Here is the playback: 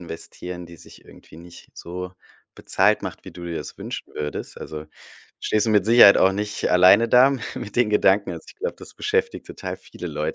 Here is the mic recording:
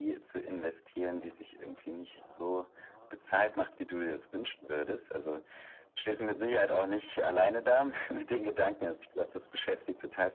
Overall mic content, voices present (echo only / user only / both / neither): echo only